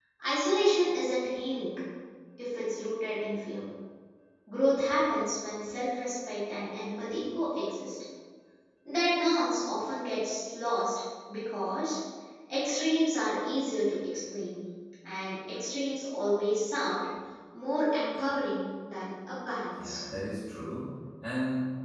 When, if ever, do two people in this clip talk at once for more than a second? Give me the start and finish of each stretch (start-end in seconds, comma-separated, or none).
none